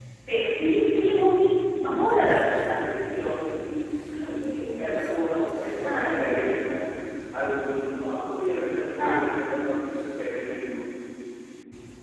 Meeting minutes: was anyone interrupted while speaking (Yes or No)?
Yes